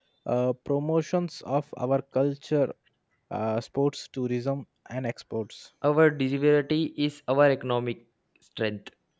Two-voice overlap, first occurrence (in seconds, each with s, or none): none